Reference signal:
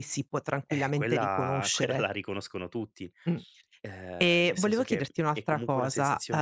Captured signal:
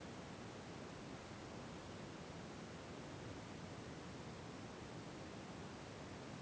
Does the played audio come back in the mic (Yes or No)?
No